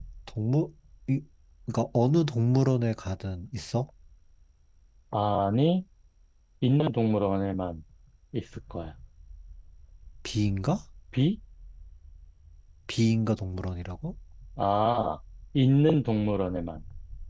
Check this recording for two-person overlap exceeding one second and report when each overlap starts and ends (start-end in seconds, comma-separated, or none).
none